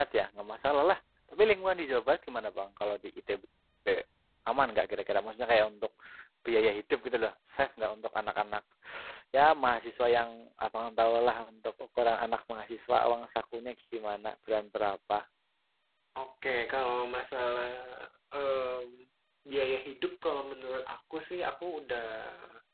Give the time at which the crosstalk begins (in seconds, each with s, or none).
none